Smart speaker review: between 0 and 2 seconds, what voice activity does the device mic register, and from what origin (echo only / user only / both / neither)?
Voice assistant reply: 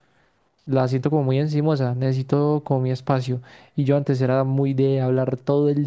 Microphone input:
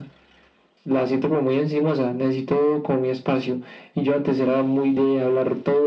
echo only